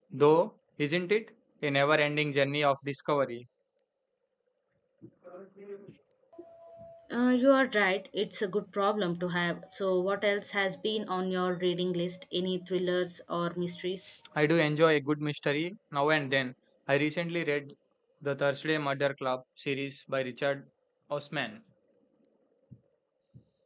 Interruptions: none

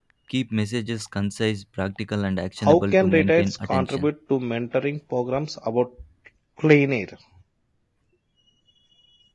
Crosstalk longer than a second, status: present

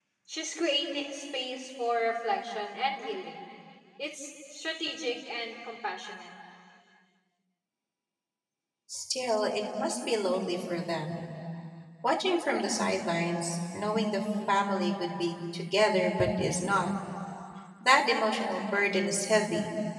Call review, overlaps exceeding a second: none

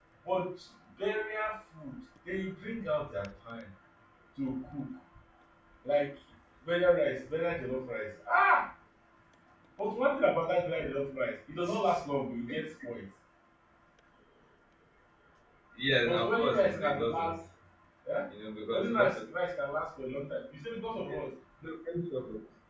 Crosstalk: present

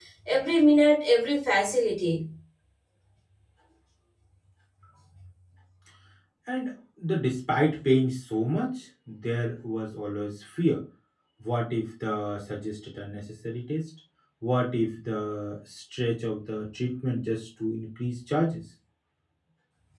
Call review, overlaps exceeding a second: none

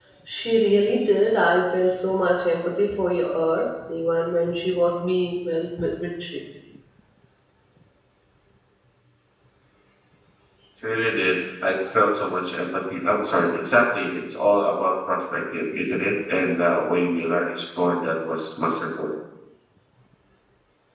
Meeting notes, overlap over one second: none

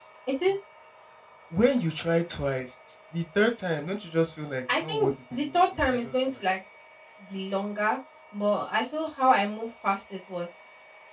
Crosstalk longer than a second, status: present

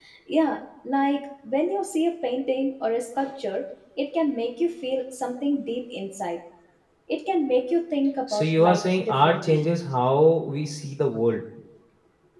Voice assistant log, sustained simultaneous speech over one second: present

